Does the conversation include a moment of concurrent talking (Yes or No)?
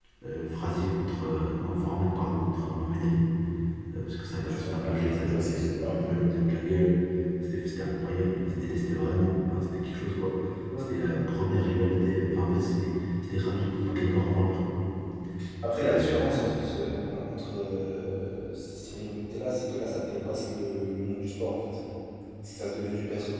Yes